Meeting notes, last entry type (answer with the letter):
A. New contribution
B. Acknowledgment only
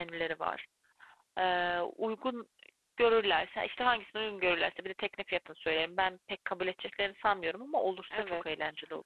A